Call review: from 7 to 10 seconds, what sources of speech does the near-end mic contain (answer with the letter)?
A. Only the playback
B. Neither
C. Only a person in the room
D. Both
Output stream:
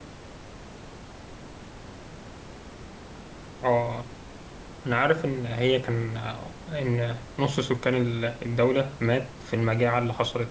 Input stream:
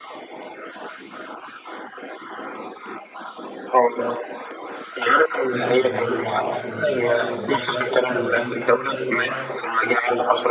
D